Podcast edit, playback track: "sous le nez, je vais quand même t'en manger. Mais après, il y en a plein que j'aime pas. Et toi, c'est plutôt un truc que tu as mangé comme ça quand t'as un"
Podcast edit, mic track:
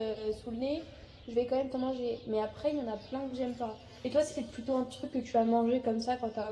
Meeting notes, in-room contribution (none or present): none